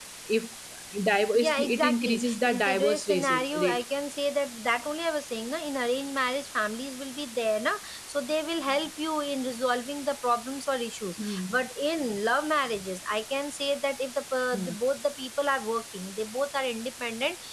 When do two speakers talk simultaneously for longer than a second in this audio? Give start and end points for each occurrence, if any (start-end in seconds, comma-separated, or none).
1.3-3.8